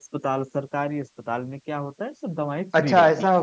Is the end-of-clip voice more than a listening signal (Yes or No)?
Yes